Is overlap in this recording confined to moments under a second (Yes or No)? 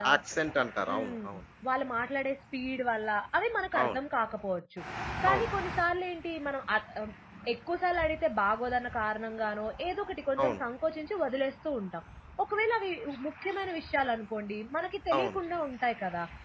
Yes